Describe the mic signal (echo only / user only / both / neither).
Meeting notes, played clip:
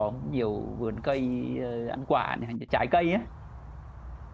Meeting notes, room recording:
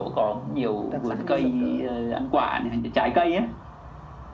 both